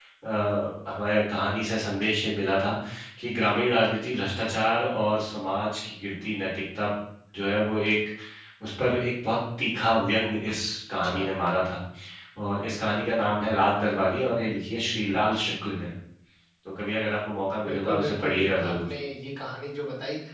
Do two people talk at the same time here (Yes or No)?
Yes